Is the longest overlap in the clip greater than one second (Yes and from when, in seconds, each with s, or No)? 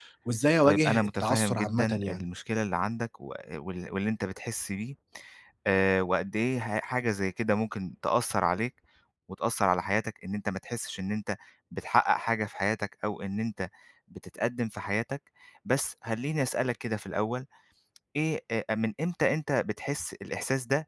Yes, from 0.6 s